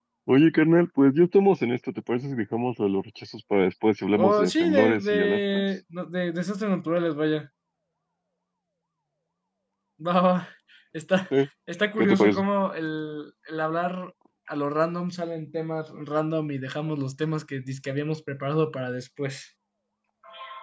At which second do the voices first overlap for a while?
4.1 s

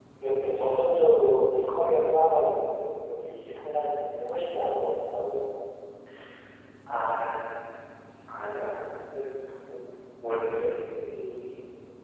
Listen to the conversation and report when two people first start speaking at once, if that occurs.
none

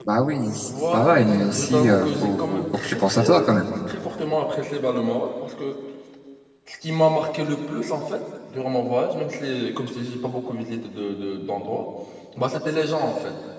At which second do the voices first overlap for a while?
0.7 s

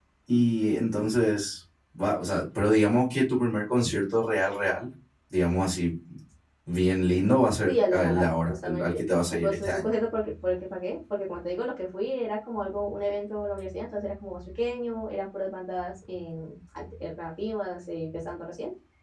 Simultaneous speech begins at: 7.6 s

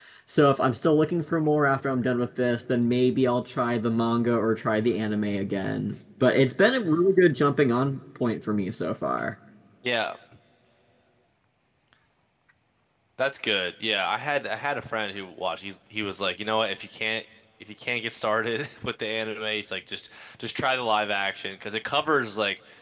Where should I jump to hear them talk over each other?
none

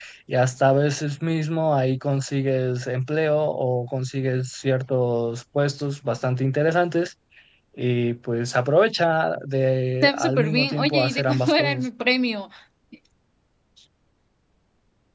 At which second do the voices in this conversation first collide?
10.0 s

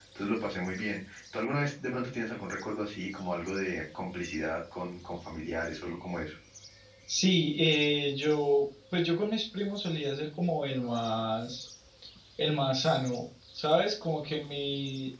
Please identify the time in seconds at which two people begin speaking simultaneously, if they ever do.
none

